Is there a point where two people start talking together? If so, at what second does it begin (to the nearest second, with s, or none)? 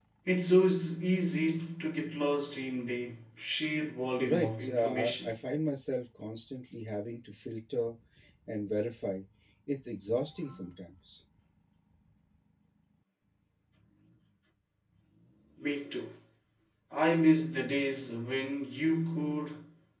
4 s